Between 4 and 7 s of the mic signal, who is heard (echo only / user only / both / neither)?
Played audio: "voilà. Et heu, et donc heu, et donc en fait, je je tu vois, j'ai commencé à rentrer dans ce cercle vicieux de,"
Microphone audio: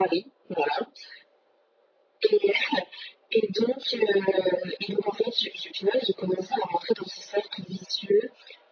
echo only